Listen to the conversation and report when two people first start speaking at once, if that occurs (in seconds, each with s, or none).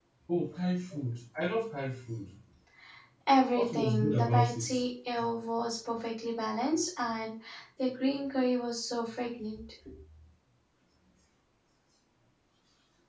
3.5 s